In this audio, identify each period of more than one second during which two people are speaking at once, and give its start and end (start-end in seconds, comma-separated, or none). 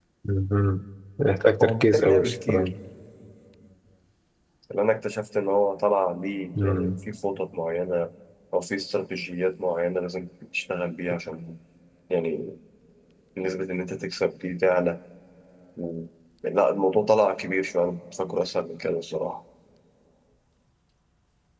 1.4-2.7